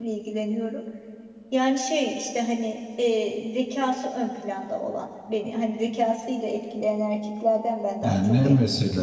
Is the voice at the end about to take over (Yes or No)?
Yes